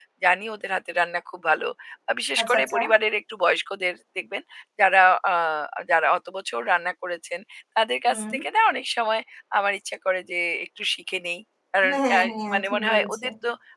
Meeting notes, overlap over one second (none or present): present